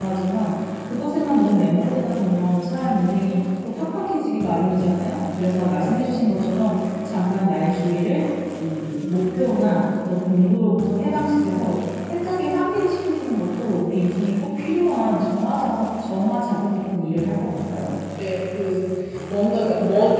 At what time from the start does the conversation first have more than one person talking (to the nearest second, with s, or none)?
none